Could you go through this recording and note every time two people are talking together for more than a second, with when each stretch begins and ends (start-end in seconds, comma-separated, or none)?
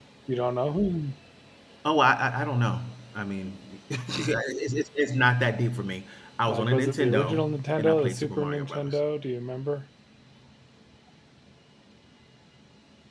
6.5-9.0